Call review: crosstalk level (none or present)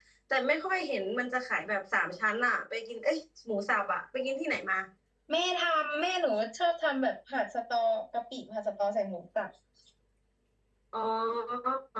none